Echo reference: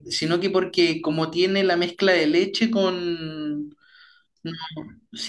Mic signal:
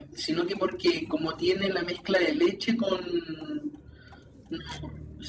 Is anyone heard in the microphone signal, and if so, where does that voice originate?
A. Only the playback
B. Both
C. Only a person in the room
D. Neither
A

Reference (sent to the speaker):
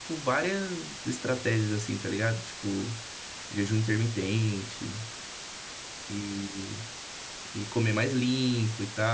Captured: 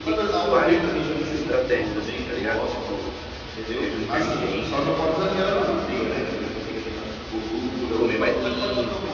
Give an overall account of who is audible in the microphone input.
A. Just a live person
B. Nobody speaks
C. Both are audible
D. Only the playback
C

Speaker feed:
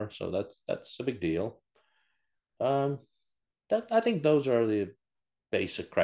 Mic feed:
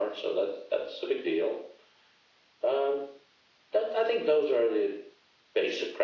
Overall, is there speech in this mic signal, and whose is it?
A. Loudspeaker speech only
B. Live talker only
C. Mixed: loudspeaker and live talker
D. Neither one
A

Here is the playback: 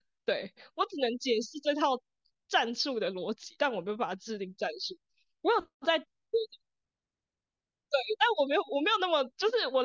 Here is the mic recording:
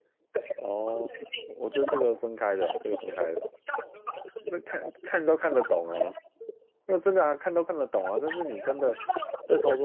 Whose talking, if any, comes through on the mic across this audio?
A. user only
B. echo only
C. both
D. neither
C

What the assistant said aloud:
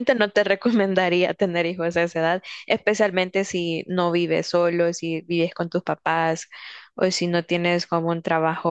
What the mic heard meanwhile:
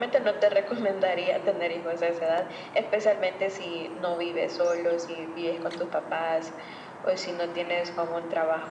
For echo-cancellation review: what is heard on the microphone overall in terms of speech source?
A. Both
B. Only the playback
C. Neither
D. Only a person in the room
B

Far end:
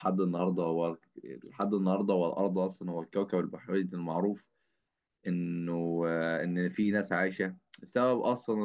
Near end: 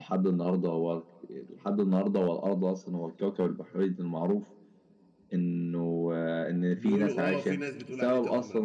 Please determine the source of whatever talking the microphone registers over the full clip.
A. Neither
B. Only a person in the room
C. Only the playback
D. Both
D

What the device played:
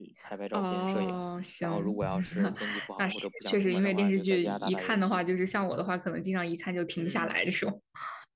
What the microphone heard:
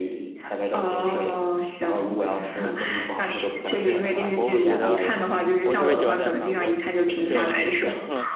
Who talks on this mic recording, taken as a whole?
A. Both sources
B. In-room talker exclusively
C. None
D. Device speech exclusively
A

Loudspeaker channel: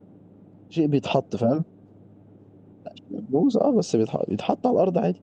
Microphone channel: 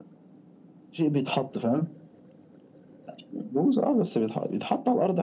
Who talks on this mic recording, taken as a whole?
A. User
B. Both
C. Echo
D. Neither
C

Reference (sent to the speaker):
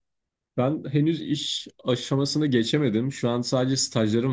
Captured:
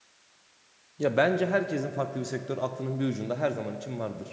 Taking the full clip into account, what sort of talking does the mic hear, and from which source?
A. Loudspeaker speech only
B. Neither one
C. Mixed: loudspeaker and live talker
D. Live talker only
D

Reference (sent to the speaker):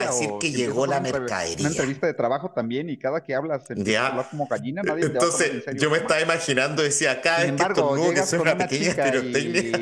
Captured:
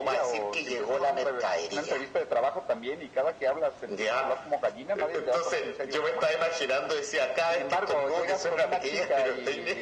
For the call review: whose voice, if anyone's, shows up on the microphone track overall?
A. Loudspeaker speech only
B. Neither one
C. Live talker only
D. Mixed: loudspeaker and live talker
A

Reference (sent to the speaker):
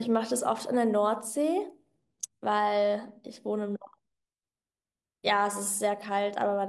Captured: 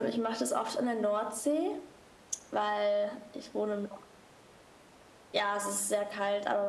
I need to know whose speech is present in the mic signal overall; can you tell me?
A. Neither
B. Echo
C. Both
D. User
B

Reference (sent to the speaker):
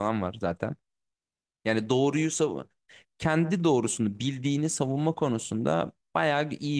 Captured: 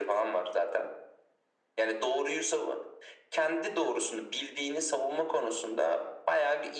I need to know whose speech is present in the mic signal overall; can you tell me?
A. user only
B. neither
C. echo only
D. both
C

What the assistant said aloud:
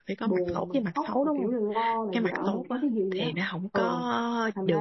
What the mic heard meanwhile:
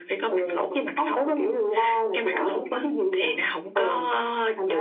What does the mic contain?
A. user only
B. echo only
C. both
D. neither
B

